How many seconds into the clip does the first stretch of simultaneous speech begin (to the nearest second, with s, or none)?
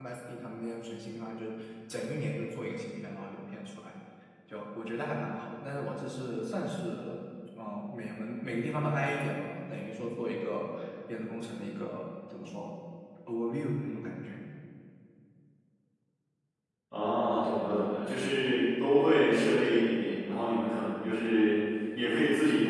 none